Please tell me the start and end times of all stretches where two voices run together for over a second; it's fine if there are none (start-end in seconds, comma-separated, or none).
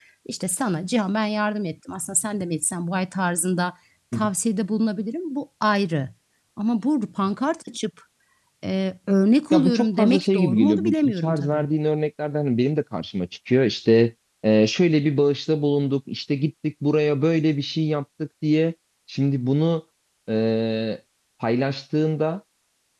9.5-11.7